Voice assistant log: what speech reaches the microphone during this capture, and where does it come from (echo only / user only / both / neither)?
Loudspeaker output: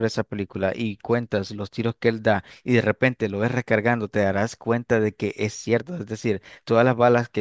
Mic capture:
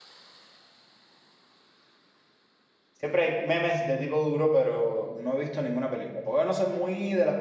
user only